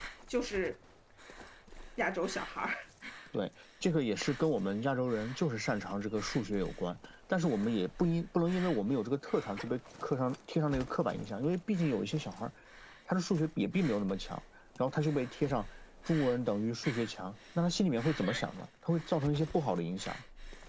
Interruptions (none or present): none